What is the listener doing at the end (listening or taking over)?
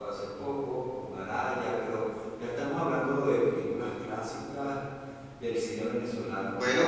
taking over